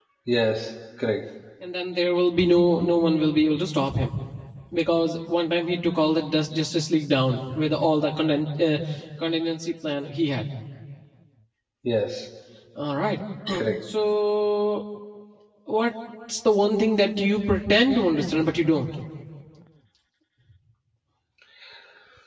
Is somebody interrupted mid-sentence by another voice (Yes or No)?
No